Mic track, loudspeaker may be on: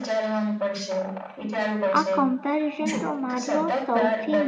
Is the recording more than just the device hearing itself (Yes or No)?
Yes